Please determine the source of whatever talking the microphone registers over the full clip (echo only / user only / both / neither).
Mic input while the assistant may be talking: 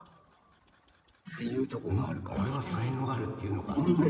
both